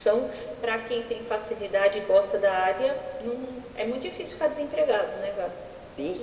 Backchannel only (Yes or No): No